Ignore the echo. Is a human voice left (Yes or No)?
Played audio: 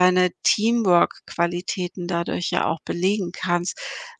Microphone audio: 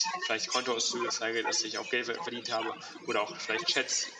Yes